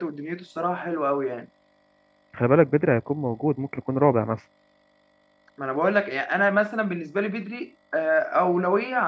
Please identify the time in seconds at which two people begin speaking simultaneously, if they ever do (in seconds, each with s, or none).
none